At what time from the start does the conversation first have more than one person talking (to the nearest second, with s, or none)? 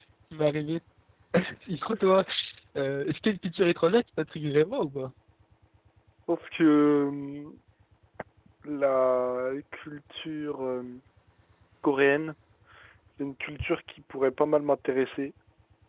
none